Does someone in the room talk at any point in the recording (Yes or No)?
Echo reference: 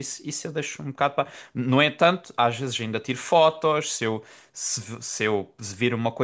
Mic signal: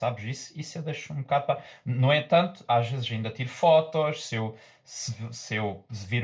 No